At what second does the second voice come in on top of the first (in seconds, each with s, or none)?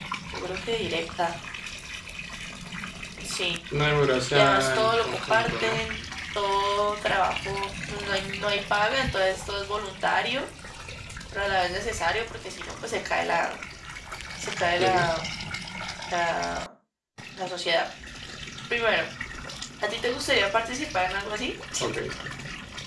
4.3 s